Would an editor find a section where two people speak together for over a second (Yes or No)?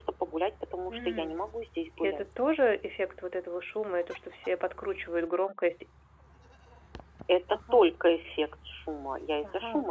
No